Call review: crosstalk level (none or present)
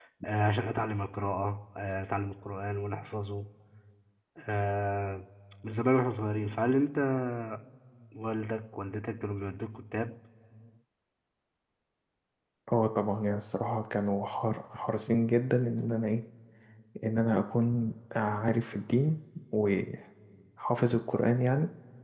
none